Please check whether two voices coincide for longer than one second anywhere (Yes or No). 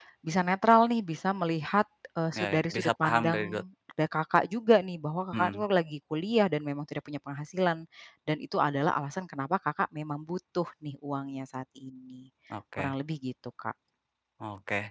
Yes